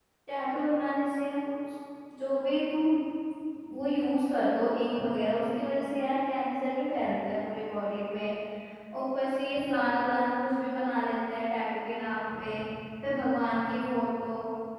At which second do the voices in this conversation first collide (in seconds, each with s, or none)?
none